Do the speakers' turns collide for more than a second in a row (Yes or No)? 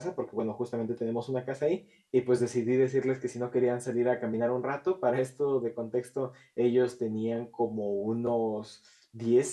No